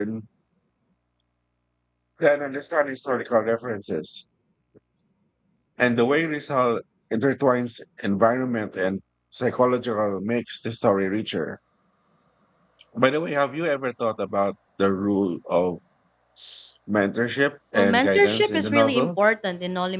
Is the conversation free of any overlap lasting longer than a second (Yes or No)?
No